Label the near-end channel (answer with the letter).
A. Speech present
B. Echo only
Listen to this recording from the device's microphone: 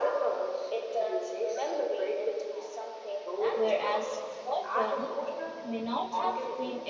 A